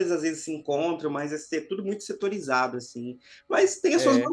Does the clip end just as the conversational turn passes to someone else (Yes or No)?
No